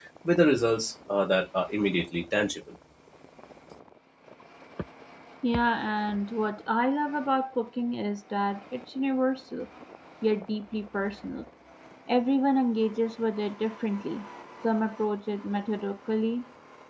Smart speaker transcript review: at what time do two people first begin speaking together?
none

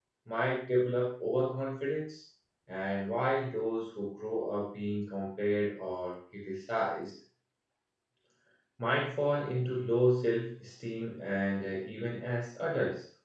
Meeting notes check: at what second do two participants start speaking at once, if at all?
none

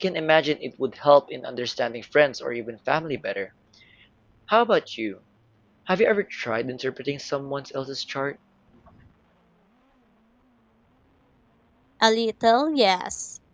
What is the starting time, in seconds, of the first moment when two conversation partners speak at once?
none

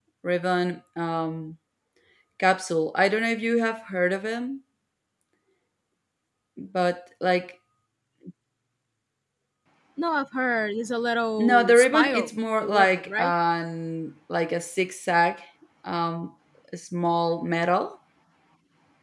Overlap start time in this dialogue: 11.4 s

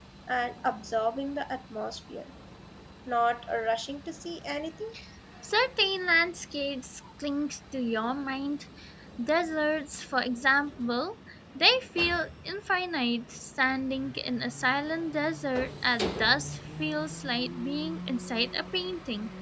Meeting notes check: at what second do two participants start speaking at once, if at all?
none

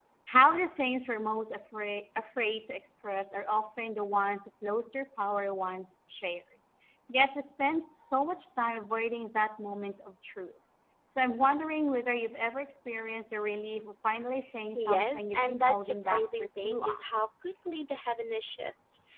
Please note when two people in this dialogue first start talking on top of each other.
14.8 s

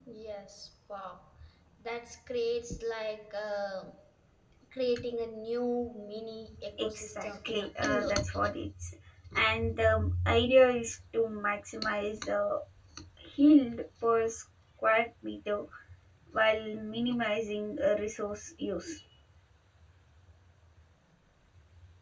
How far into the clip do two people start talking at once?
6.8 s

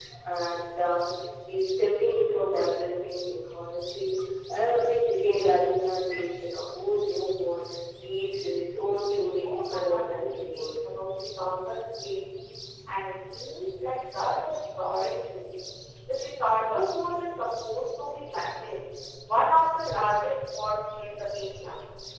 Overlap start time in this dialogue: 9.3 s

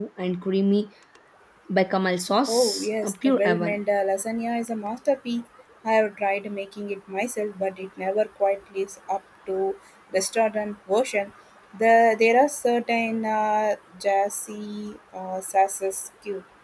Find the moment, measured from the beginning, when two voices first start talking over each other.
2.5 s

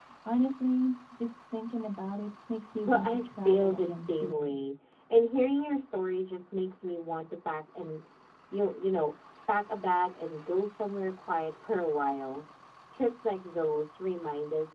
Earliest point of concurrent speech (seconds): 2.9 s

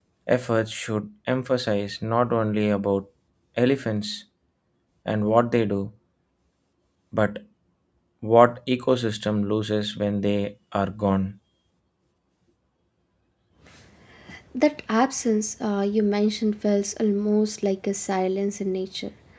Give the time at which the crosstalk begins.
none

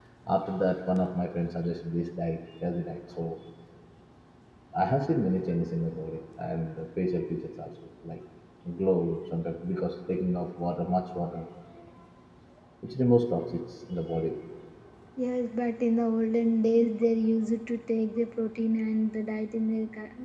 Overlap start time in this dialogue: none

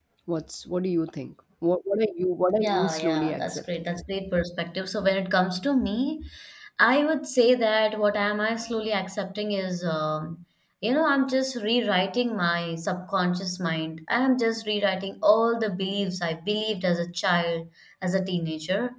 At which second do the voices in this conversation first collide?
2.6 s

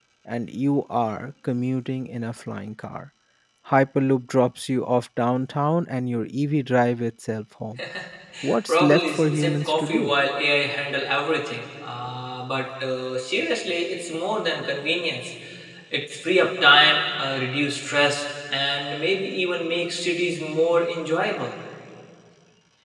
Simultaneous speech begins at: 8.7 s

